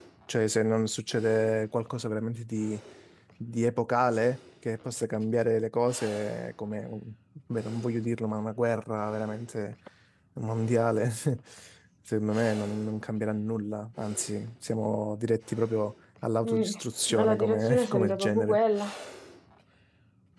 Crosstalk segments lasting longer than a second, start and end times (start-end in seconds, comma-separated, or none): 17.1-18.6